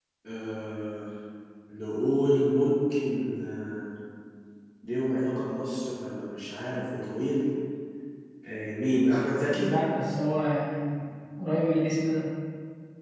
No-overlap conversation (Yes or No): Yes